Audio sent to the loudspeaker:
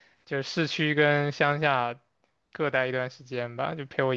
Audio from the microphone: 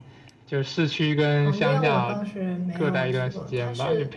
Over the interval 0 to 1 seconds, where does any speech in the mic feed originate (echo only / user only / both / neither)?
echo only